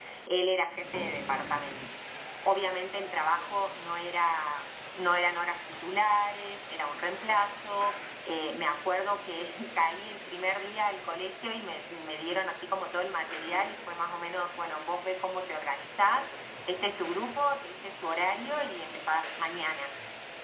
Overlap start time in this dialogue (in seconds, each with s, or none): none